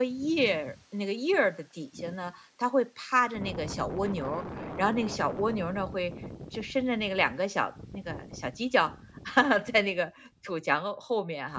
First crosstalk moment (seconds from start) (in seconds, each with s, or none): none